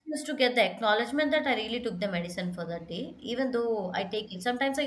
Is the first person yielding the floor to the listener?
No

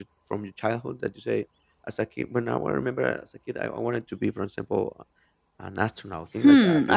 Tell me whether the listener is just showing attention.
No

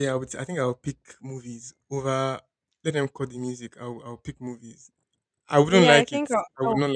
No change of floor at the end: No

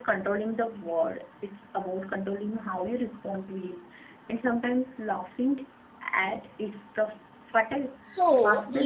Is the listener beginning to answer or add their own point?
Yes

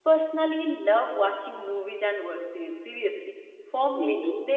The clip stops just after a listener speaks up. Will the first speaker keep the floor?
Yes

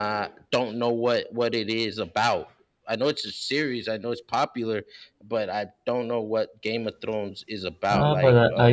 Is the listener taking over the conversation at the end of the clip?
Yes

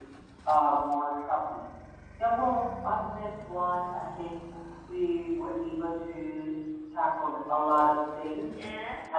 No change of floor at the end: Yes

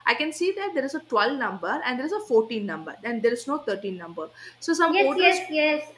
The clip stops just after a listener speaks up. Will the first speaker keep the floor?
No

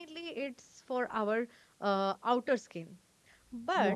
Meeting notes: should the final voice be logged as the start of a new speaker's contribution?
No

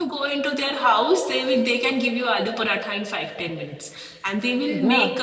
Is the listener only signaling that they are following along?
Yes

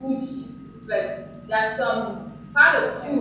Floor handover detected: No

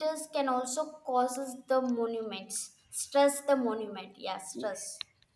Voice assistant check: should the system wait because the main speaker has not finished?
No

